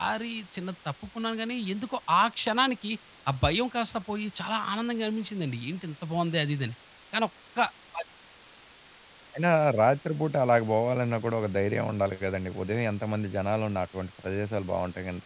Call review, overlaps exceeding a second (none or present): none